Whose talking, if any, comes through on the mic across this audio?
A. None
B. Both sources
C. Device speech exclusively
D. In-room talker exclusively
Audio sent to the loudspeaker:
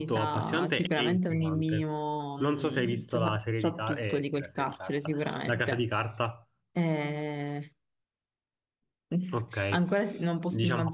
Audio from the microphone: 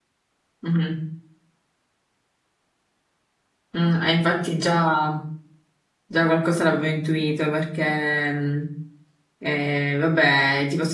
D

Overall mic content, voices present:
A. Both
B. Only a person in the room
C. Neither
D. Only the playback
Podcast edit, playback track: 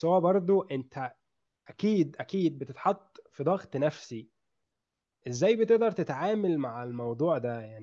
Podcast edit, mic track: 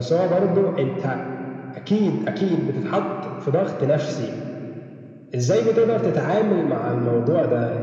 D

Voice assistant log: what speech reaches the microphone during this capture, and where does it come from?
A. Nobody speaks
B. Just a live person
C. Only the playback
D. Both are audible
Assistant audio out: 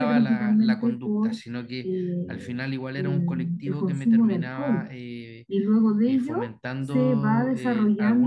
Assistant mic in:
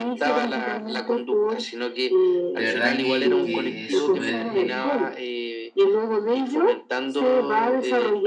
D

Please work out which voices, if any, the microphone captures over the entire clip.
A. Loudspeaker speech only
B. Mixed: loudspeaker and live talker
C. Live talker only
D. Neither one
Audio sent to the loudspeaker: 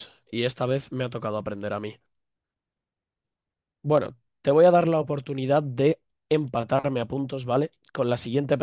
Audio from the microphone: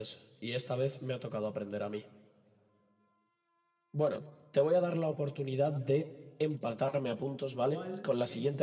B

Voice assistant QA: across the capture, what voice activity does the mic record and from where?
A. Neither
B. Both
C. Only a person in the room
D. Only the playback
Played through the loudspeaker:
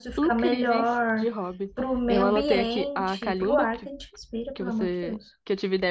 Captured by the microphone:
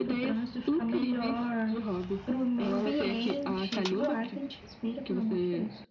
D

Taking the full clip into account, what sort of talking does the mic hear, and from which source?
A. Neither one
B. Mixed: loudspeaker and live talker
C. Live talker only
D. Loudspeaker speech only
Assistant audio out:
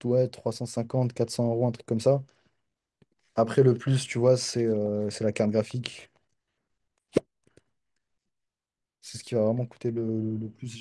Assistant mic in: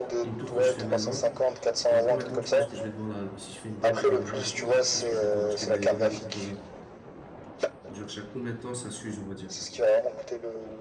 B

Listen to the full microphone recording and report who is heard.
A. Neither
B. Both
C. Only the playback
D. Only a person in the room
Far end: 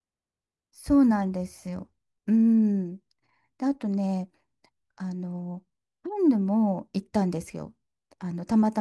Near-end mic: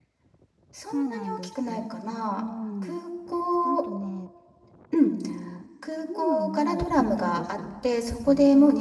B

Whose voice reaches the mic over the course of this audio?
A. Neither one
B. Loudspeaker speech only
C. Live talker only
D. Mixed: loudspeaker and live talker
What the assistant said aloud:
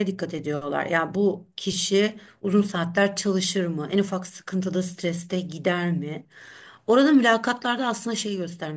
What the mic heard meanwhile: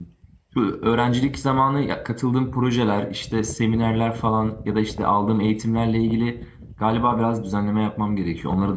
C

